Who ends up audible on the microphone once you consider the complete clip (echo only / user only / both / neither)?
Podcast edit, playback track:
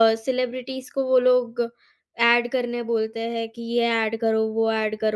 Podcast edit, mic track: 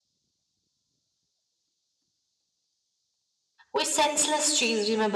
user only